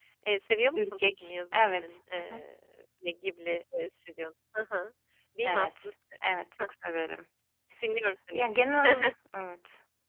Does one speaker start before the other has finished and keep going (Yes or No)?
Yes